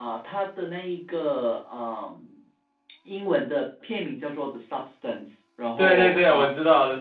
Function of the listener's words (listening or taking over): taking over